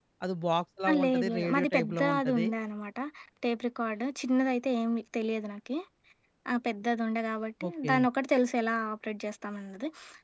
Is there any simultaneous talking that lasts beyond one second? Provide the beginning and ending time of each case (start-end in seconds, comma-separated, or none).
0.9-2.5